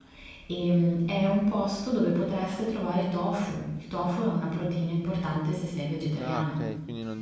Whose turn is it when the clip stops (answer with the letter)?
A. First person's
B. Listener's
B